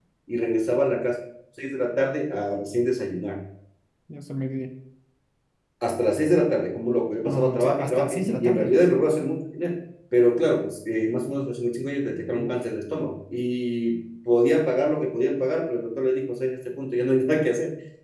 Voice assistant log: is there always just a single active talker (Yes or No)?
No